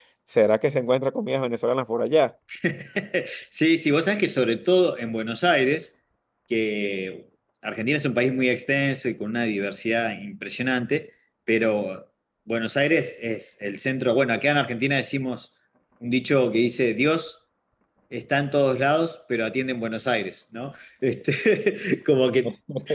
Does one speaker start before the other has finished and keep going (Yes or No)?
No